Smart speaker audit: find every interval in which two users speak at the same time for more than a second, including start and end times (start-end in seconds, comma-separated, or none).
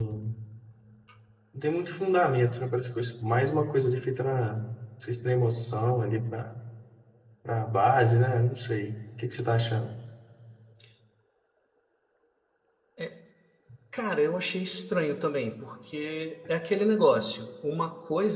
none